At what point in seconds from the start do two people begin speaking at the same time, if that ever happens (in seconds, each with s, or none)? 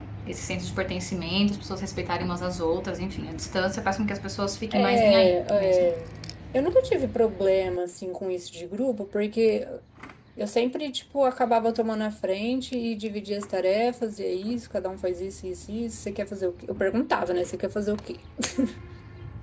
4.7 s